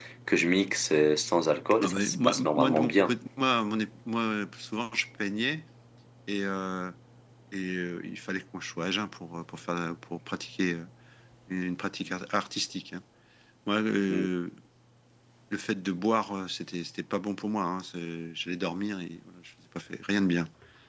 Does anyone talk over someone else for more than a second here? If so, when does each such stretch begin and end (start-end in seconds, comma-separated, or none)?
1.8-3.1